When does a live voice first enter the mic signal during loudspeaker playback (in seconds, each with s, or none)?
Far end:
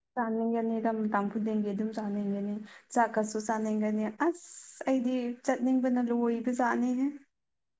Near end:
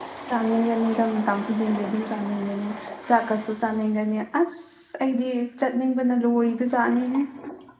none